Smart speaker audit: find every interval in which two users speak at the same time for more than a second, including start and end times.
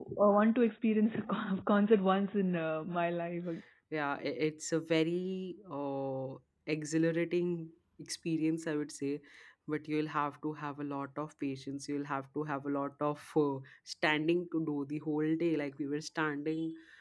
none

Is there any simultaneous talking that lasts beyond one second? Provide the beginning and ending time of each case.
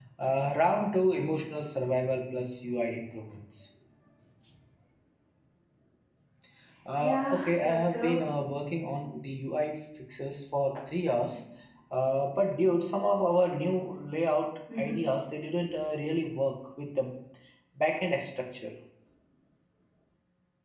7.0-8.2

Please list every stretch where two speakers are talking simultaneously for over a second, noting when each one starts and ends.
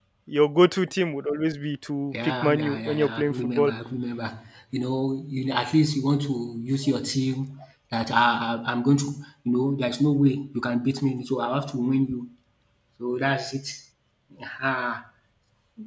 2.2-3.7

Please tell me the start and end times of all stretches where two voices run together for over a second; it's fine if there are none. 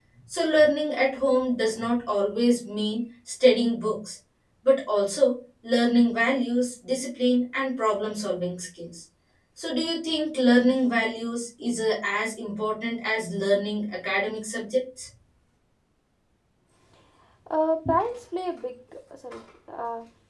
none

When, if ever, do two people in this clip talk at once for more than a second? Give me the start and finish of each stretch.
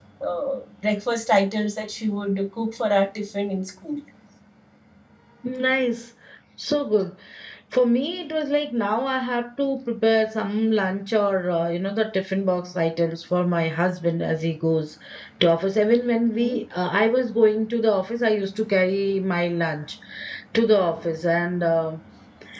none

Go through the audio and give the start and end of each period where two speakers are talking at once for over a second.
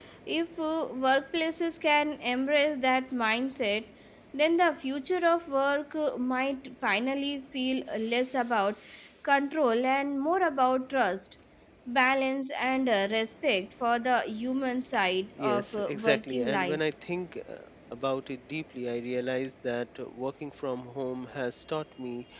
15.4-16.8

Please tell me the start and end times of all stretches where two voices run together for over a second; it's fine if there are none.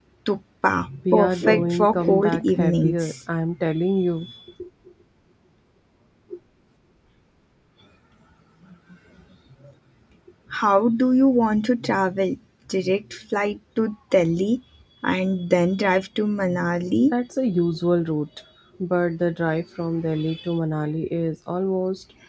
1.1-3.1

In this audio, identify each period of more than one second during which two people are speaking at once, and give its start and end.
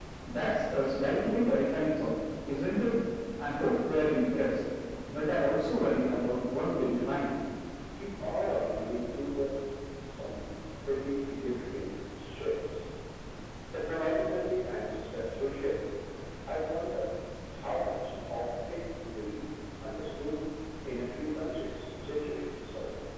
none

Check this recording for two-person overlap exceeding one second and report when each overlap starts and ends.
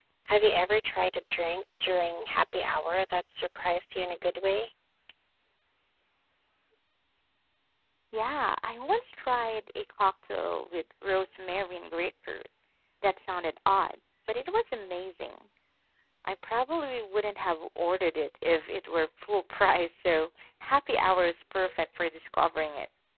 none

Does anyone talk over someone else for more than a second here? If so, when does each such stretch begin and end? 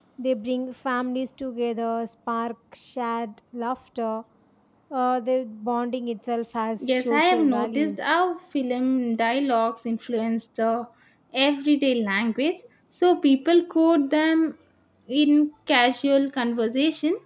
6.8-8.1

